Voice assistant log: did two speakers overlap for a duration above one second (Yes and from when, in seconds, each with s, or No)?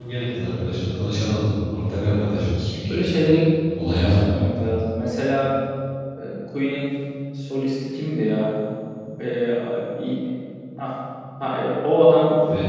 No